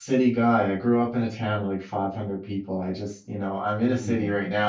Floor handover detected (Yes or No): No